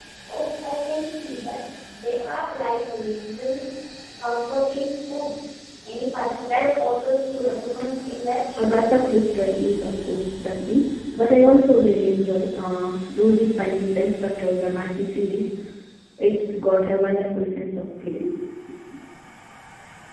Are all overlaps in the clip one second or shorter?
Yes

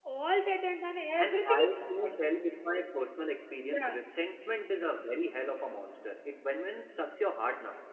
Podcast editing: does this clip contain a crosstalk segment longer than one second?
No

